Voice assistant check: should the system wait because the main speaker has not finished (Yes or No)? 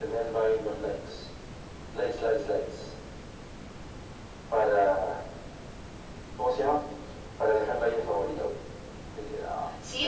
No